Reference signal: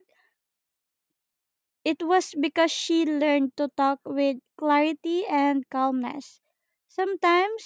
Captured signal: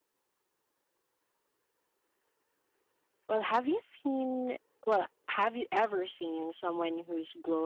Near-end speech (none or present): present